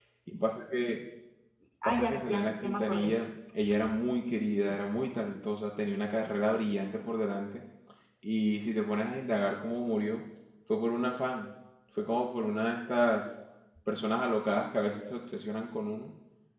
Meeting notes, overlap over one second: present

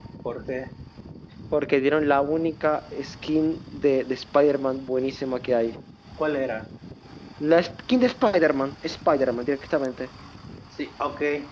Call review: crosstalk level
none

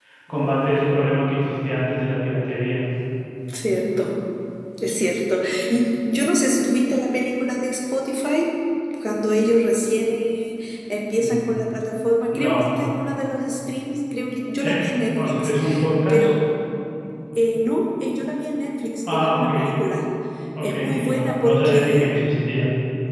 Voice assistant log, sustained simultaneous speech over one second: present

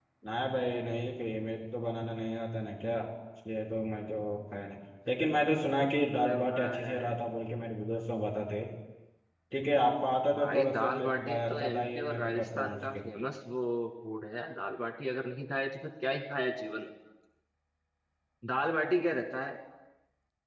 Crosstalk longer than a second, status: present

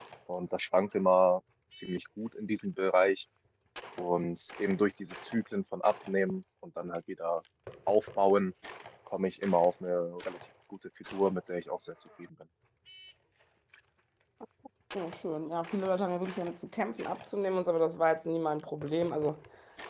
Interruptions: none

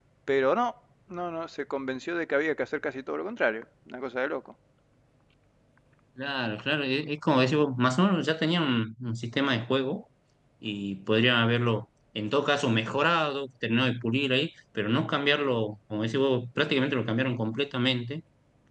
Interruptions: none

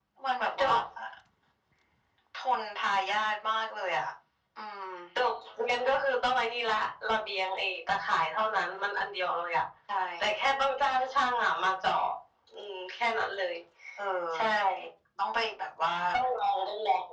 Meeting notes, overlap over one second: none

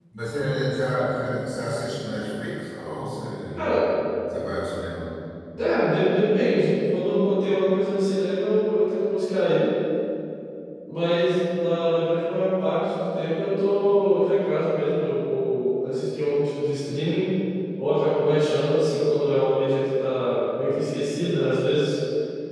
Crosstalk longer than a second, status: none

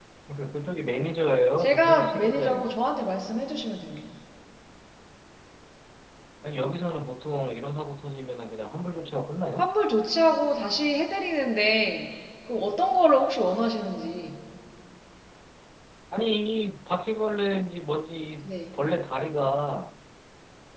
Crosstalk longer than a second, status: present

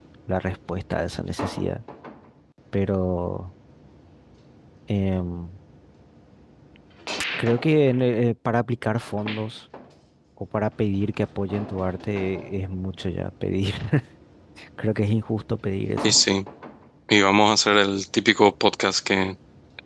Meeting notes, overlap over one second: none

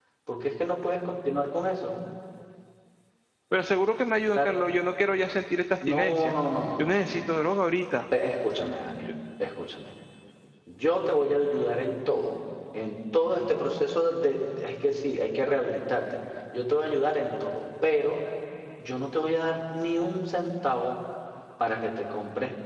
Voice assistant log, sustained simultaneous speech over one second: none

